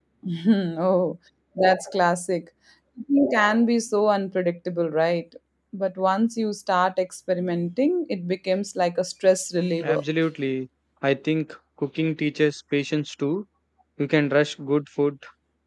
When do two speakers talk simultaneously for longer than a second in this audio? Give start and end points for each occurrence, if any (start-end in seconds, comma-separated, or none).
none